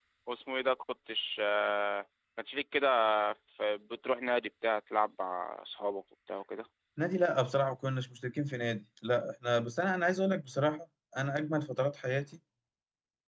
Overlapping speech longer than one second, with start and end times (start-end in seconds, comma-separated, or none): none